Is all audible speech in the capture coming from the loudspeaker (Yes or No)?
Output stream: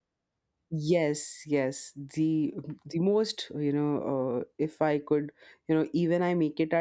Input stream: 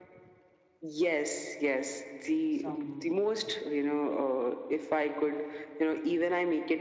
No